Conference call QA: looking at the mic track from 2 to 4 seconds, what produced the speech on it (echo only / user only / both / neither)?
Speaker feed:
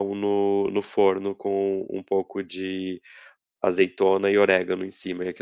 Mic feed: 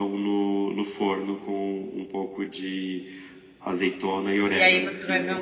echo only